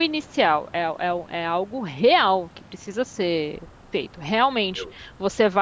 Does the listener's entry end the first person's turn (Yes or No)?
No